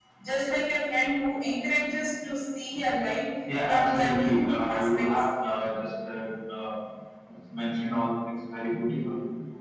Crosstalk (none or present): present